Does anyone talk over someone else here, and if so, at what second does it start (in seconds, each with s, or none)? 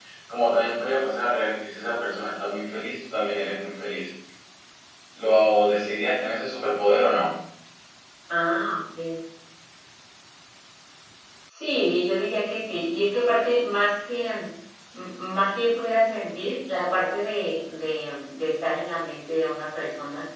none